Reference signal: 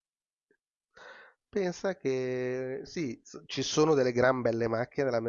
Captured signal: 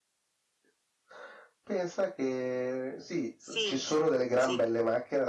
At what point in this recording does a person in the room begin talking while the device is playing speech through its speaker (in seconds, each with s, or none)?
3.4 s